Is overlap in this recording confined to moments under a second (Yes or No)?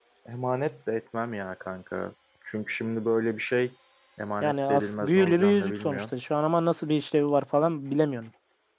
No